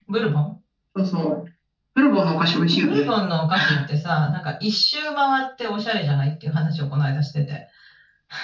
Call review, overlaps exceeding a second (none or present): none